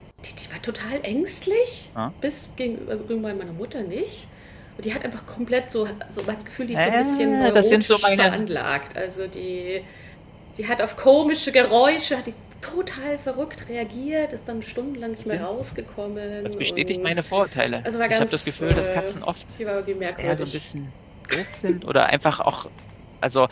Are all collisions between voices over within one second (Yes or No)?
No